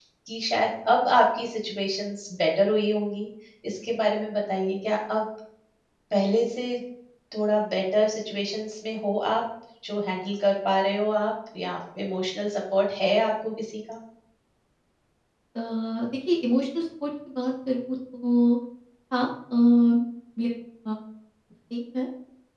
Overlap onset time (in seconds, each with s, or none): none